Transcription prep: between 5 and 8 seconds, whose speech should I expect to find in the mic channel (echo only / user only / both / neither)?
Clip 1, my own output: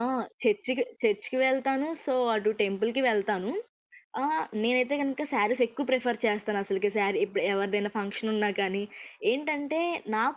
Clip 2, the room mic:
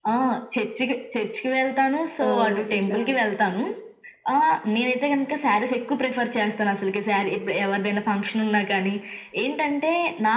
echo only